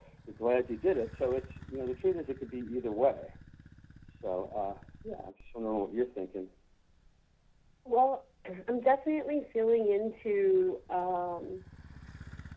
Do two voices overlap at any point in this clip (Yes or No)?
No